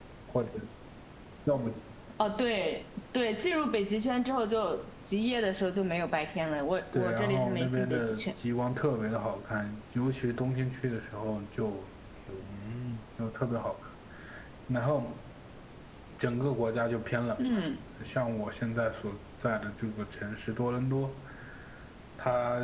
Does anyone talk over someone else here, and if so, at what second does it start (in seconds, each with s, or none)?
6.9 s